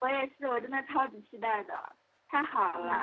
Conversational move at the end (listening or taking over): listening